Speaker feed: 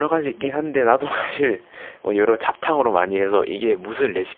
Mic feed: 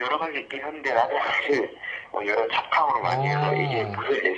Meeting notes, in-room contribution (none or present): present